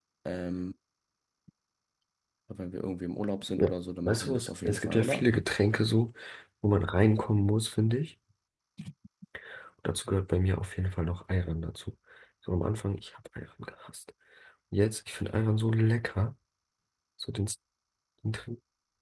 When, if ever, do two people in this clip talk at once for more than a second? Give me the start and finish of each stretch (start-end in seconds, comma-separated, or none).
4.0-5.3